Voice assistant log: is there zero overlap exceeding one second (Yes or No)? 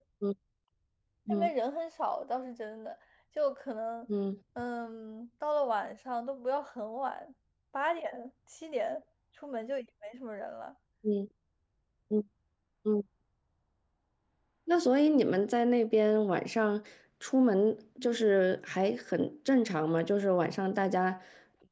Yes